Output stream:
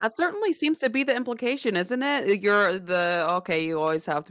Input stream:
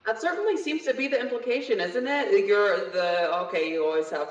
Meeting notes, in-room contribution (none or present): none